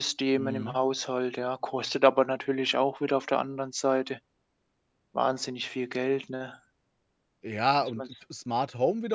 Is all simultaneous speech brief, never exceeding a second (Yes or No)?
Yes